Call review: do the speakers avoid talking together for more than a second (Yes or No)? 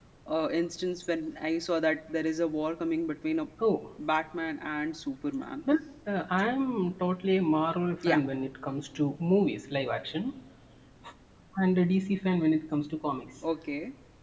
Yes